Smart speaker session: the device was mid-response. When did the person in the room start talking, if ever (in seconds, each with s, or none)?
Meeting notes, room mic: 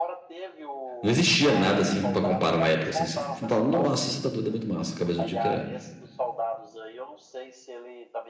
1.0 s